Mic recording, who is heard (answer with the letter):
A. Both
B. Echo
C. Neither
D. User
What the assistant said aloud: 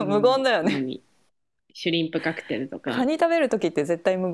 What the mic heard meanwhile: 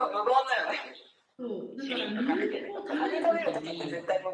A